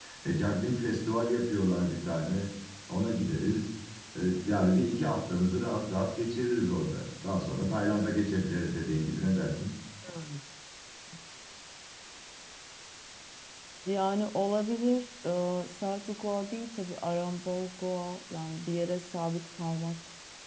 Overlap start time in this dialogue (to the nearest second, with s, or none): none